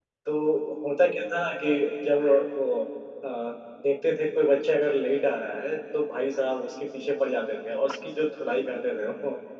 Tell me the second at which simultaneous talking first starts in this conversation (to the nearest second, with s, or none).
none